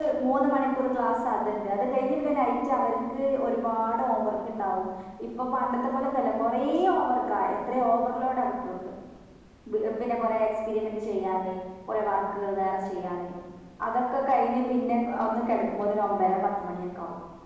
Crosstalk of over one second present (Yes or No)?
No